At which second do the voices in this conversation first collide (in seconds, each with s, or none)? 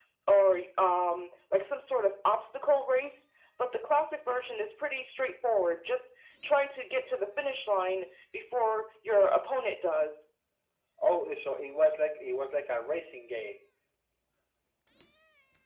none